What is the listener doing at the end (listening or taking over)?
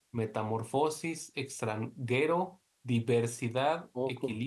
listening